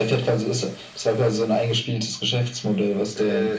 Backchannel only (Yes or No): No